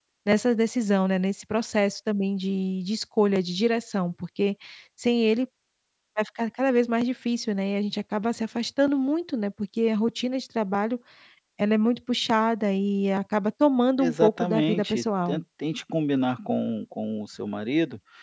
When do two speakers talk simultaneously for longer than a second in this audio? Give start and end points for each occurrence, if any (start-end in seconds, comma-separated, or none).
14.0-15.4